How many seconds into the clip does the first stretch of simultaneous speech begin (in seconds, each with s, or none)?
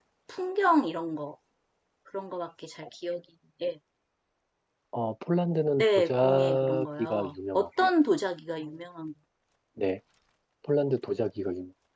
5.8 s